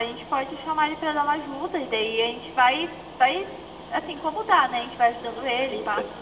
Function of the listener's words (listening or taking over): taking over